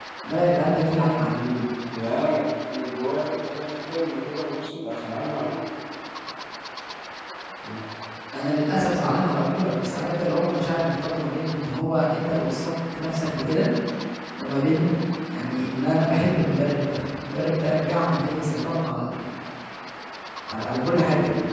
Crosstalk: none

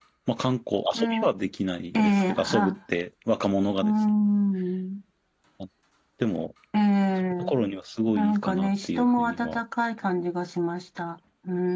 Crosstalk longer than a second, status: present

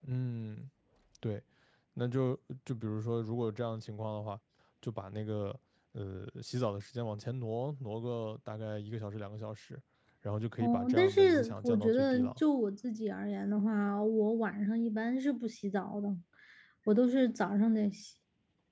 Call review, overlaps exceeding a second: present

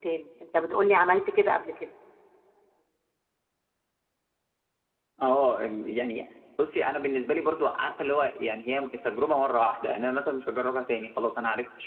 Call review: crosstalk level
none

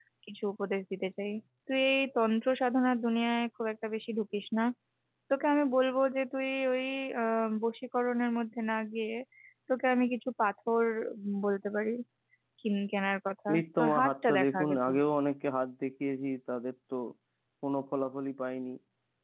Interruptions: present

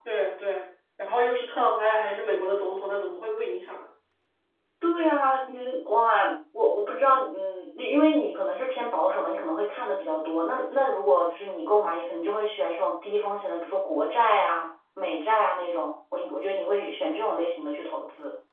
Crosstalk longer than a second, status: none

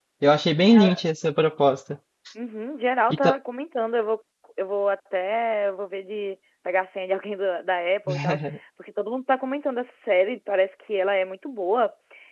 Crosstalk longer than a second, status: none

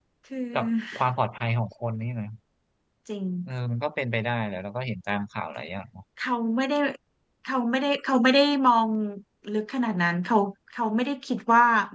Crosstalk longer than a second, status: none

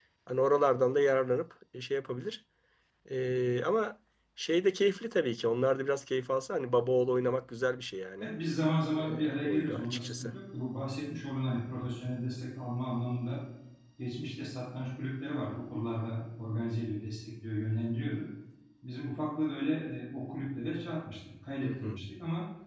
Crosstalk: present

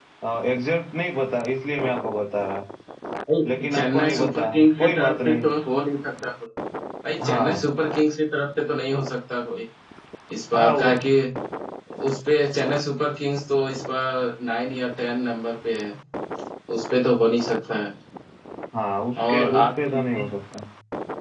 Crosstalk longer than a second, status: present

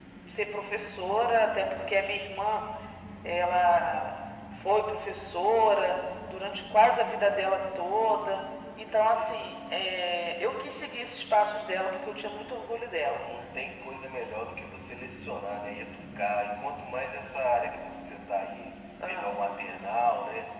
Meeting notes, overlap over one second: none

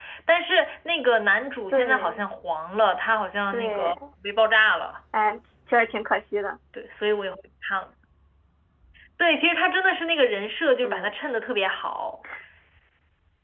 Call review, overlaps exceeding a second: none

